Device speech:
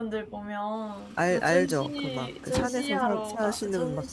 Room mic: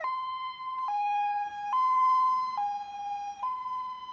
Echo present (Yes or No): No